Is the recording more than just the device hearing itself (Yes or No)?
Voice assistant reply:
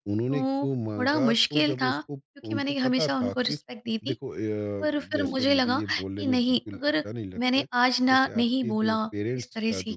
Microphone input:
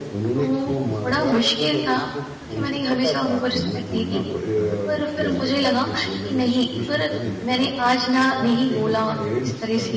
Yes